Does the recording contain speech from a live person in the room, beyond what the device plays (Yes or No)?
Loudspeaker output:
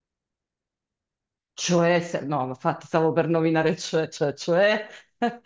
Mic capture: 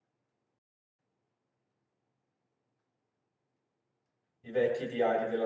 Yes